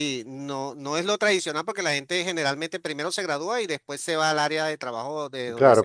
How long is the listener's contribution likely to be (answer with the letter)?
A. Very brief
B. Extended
B